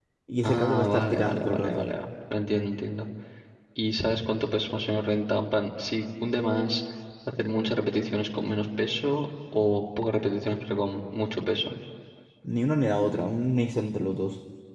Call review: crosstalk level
present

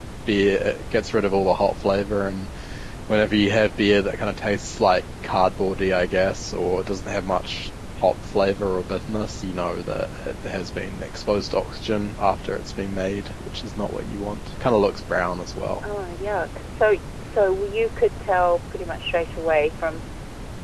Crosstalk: none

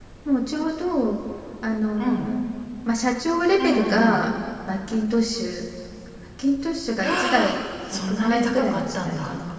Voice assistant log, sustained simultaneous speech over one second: present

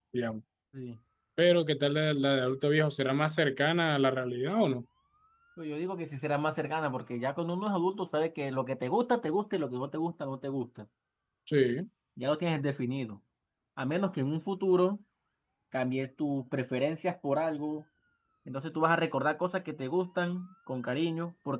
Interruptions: none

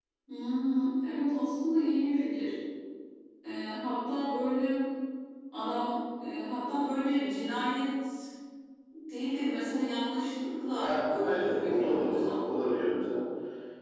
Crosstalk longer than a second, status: present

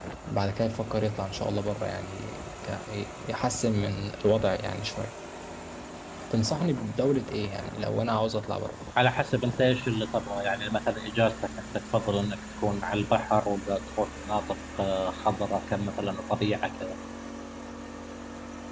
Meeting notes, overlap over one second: none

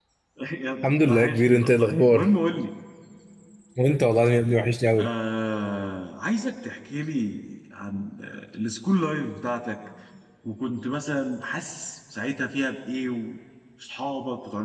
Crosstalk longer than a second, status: present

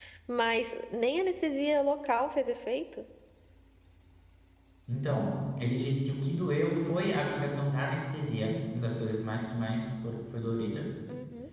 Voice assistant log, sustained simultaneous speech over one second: none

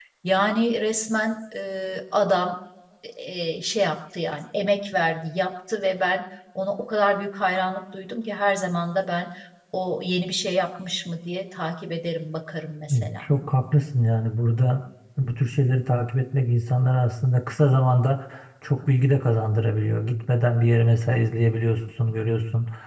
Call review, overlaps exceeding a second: none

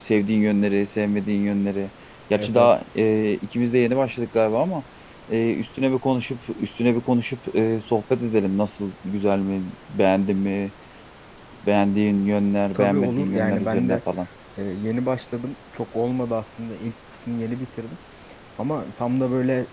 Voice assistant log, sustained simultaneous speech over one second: present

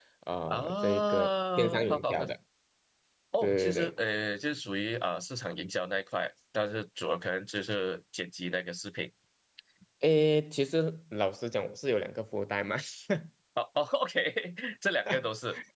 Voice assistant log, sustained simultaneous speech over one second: present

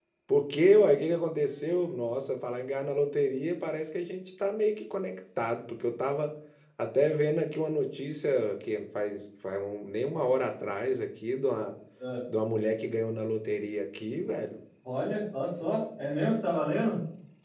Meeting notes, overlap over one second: none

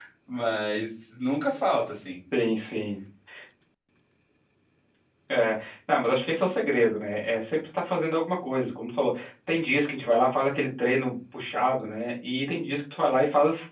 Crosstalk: none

